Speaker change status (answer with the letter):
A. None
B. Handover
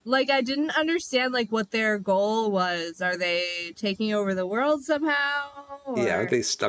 B